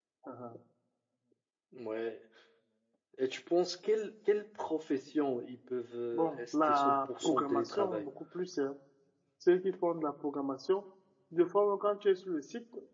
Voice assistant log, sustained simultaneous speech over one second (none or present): present